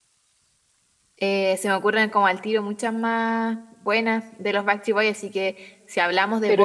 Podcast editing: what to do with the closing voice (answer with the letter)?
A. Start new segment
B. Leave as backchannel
B